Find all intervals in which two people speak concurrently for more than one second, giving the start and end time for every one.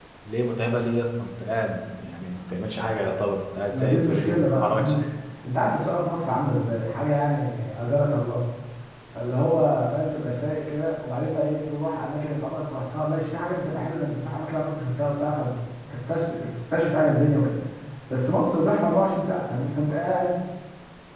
3.7-4.9

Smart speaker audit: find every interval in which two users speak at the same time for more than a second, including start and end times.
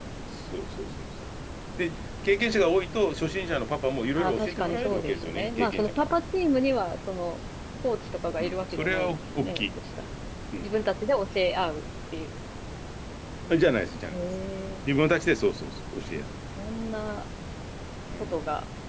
4.2-6.1, 8.4-9.6

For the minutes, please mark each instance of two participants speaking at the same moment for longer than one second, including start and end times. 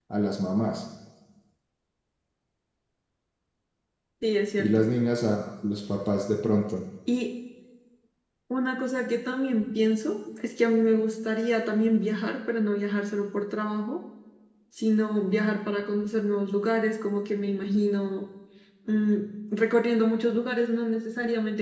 none

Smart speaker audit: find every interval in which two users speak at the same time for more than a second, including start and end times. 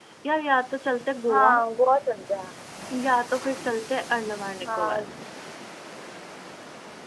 none

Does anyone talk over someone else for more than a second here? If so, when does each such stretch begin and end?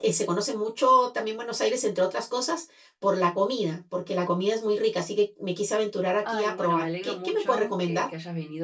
6.2-8.1

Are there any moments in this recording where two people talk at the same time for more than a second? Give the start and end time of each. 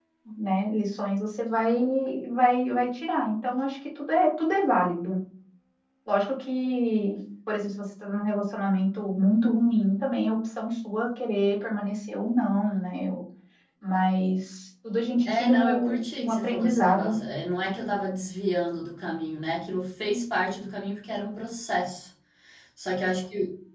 15.3-17.2

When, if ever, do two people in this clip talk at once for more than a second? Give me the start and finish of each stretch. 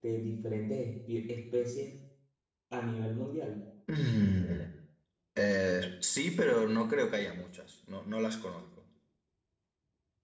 none

